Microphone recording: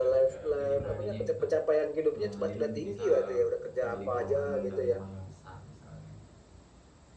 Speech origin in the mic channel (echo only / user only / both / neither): both